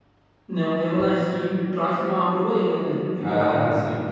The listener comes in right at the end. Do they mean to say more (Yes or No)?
No